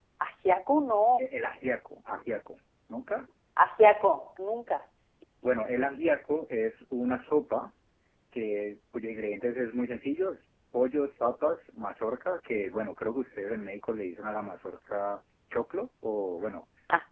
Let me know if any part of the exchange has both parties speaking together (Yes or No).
No